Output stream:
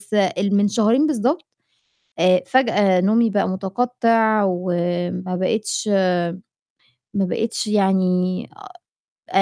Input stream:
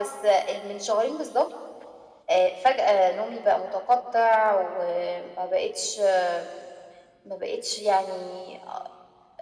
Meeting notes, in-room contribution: none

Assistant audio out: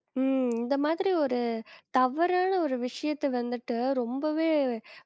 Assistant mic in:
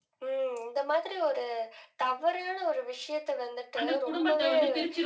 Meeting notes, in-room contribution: present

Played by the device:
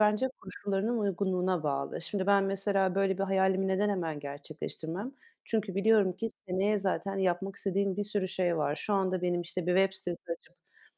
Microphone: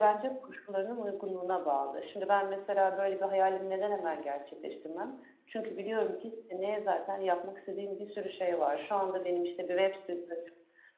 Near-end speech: none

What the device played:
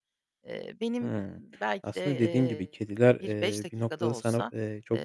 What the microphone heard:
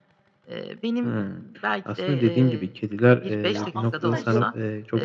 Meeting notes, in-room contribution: present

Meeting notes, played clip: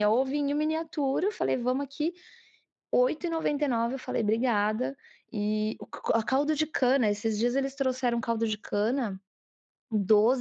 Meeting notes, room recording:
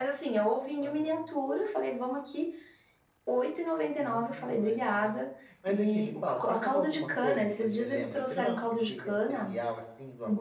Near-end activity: present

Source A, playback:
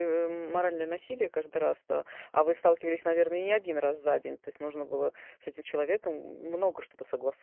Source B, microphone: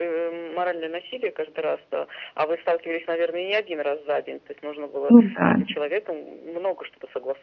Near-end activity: present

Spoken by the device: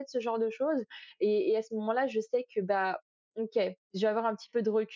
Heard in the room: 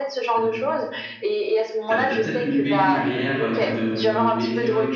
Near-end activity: present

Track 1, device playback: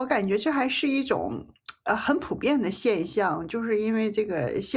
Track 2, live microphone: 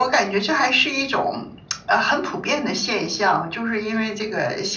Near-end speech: none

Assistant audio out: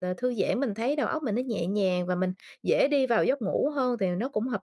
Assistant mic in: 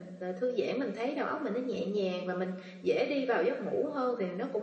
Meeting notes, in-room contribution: none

